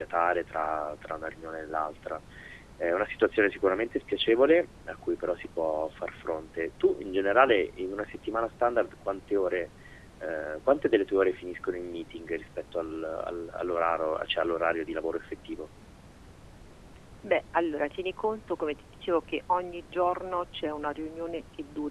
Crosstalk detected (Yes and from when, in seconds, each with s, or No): No